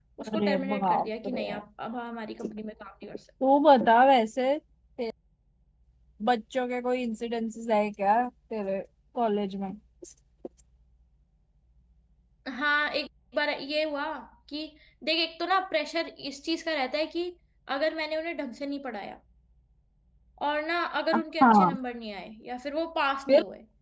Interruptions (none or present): present